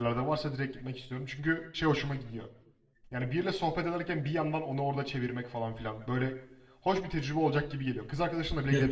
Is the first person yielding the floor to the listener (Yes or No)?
Yes